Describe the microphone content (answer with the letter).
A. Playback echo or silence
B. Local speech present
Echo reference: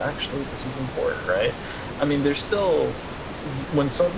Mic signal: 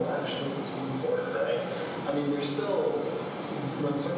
A